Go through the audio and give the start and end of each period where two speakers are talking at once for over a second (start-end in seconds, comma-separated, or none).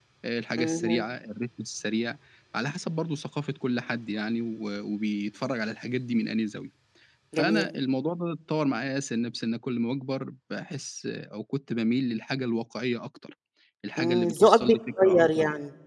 14.0-15.2